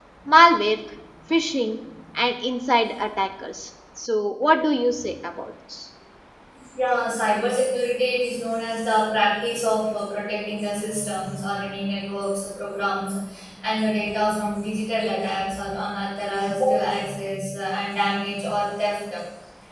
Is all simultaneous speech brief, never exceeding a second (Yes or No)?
Yes